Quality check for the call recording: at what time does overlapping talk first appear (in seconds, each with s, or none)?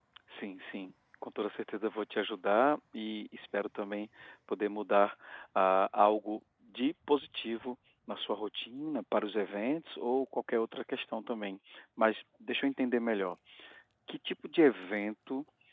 none